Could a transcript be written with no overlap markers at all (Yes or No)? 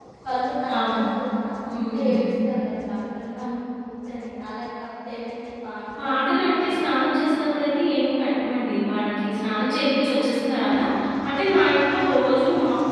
No